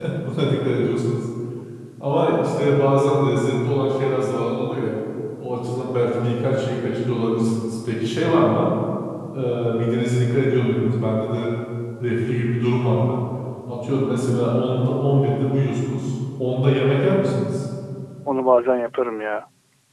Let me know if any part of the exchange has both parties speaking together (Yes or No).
No